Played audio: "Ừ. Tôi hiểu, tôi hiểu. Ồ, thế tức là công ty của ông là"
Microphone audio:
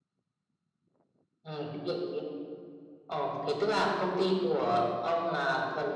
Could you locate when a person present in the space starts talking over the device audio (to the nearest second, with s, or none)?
none